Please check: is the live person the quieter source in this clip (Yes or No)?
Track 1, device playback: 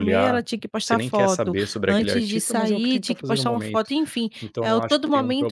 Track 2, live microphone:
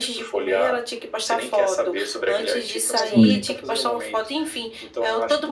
No